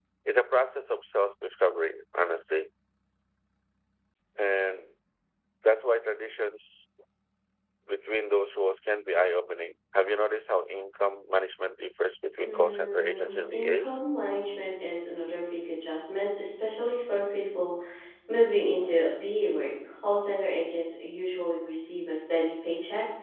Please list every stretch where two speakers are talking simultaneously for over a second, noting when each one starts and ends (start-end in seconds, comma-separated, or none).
12.4-14.0